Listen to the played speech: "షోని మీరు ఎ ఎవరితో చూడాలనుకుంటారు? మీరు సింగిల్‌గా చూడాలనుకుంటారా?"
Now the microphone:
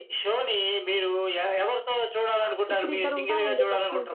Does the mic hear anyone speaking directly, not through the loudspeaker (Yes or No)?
Yes